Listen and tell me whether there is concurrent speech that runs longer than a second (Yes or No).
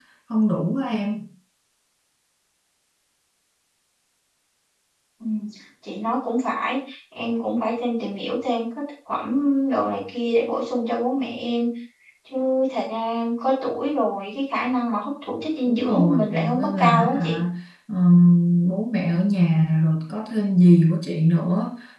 Yes